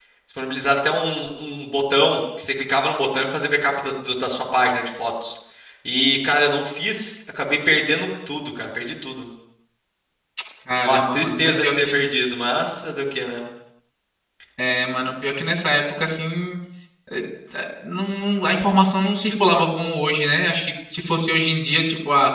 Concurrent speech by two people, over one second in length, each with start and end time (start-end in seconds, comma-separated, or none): 10.8-12.0